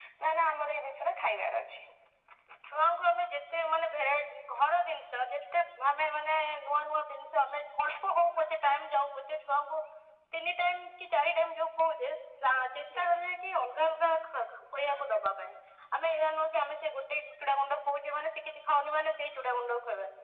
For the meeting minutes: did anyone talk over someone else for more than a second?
No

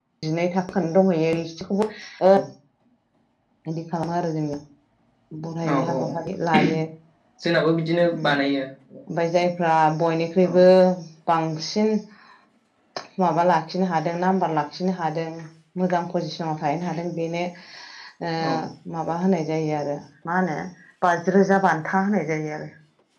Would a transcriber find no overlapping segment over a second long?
Yes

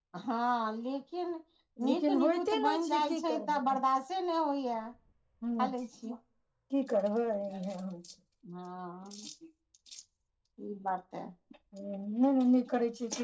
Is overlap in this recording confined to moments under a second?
No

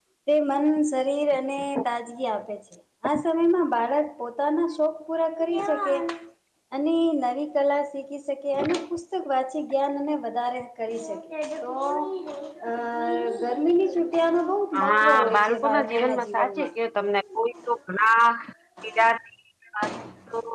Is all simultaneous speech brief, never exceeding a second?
No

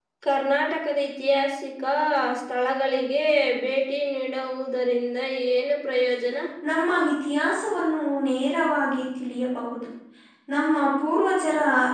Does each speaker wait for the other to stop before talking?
Yes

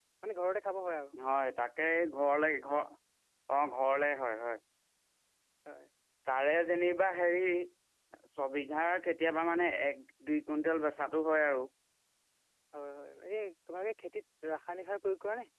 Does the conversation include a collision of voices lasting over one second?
No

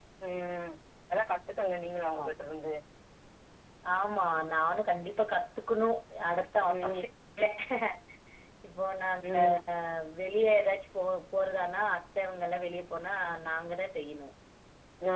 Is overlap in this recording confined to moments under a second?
Yes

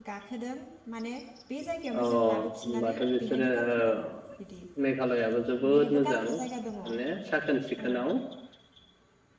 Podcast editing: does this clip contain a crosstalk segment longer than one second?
Yes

